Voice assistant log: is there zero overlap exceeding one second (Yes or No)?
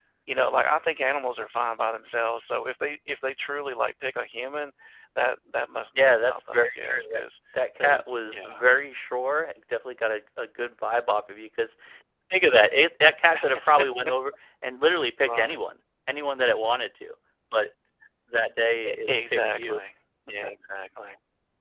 No